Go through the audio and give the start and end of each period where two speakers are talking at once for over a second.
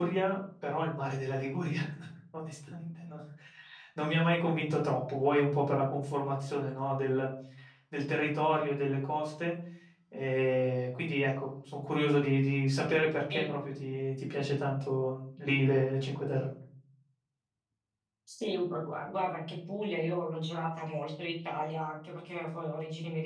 none

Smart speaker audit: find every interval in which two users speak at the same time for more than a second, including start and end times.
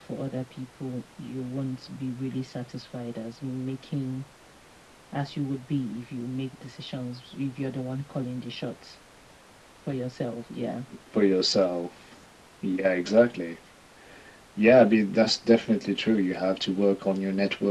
none

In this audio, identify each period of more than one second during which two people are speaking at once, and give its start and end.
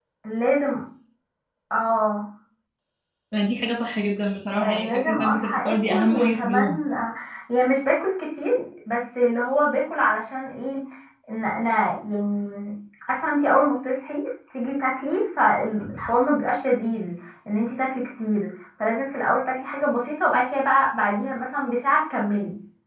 4.6-6.8

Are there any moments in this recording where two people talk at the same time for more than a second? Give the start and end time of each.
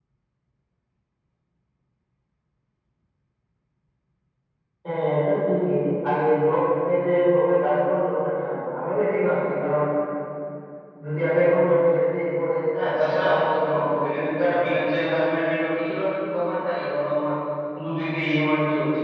13.0-14.7

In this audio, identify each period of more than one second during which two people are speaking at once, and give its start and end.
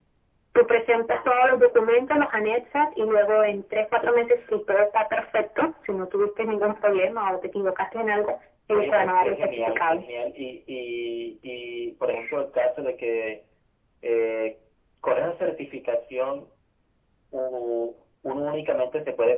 8.7-10.0

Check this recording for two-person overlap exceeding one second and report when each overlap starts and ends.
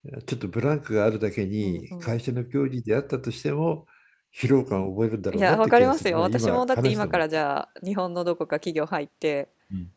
5.3-7.2

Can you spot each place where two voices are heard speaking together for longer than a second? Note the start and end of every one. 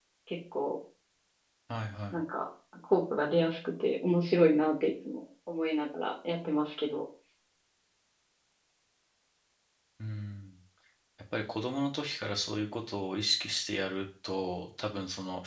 none

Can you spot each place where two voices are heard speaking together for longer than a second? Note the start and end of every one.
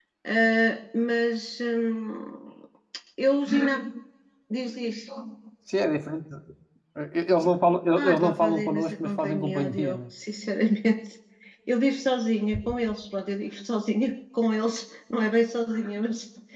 8.0-10.0

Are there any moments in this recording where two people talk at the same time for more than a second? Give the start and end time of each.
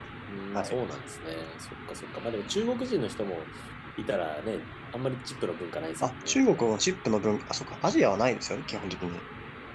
none

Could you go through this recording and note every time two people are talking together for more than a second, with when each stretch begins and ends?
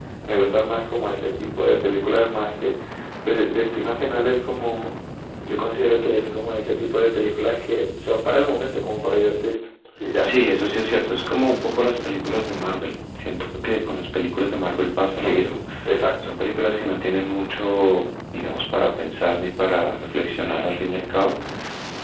none

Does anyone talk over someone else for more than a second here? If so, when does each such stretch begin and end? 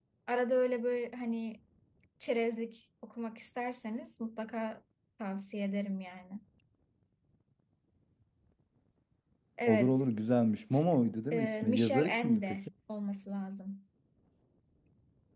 11.3-12.5

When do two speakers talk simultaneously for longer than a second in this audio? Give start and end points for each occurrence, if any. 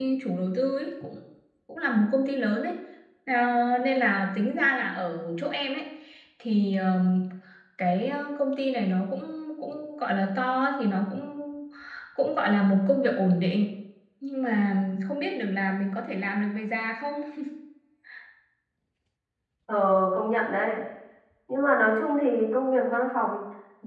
none

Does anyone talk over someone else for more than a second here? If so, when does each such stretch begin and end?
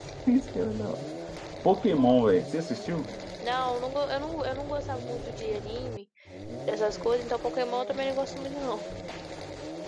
none

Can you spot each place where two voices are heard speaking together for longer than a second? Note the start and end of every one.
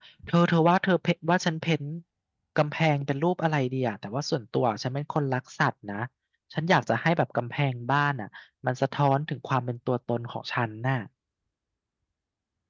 none

